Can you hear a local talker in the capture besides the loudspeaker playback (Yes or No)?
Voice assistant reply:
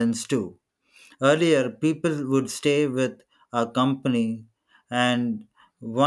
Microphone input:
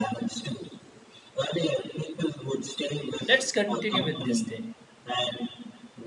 Yes